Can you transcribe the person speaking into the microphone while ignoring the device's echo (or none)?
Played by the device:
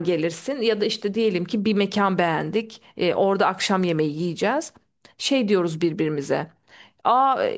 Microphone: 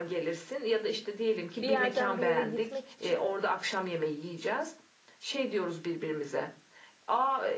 Bir yerden bir yere gitmek için